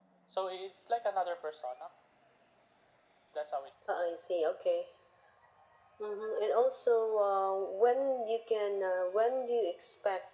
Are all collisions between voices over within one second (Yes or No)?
Yes